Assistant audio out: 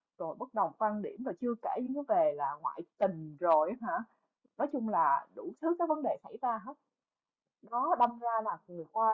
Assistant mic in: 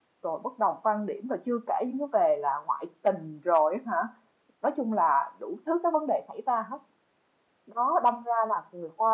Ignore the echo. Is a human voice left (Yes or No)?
No